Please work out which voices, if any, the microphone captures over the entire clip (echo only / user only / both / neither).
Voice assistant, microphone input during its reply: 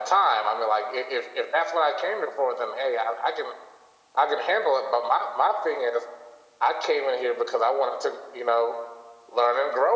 echo only